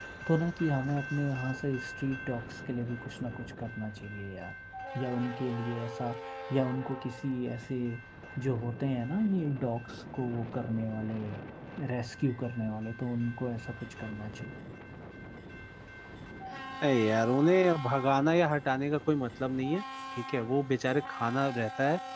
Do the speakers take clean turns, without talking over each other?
Yes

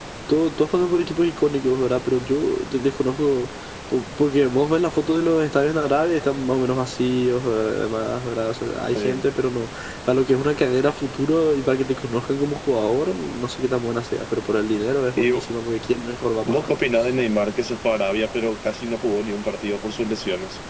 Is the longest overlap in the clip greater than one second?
No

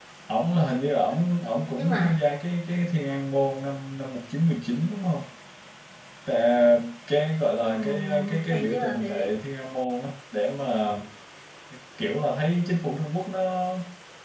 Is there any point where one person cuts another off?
Yes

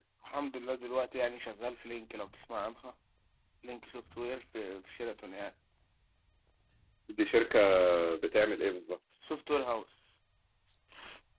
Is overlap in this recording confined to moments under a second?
Yes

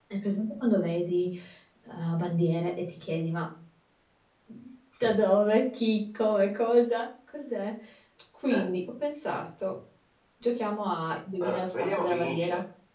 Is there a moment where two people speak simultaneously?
Yes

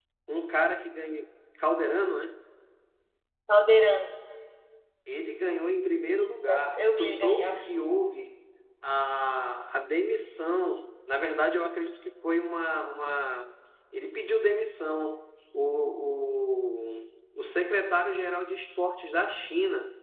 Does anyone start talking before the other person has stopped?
Yes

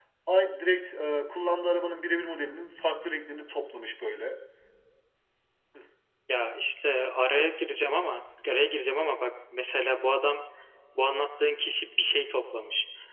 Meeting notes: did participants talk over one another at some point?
No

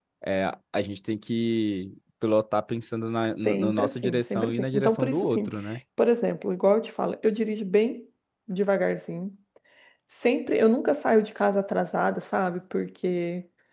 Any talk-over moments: Yes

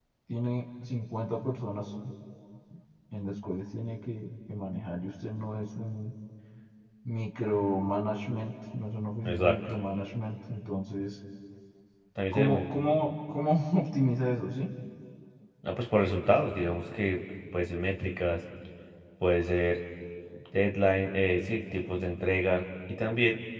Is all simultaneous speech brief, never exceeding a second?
Yes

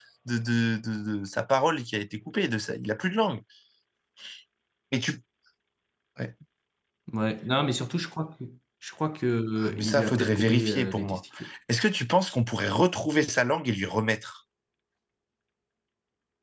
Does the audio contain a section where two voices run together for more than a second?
Yes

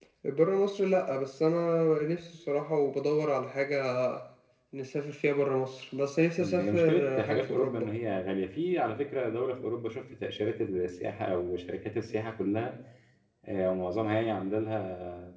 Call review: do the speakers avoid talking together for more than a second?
No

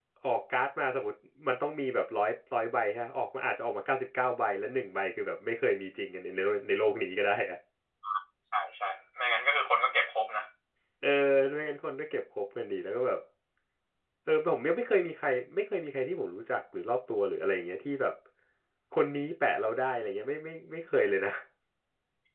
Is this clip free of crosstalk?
Yes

